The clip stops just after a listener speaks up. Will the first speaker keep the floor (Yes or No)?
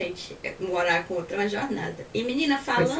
Yes